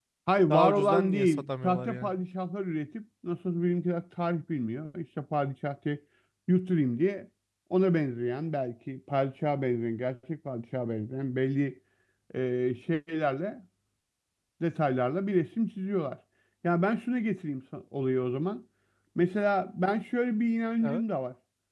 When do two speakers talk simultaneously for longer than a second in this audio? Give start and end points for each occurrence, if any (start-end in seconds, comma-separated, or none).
0.5-2.1